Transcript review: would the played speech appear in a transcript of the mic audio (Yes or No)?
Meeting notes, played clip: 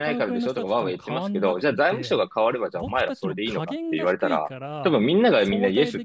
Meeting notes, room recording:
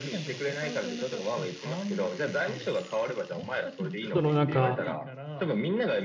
Yes